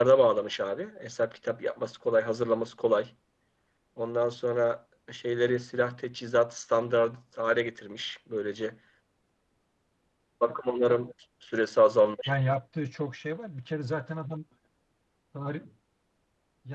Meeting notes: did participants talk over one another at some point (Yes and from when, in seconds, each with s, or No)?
No